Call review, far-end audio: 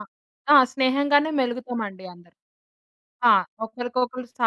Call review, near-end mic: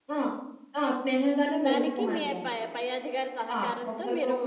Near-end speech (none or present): present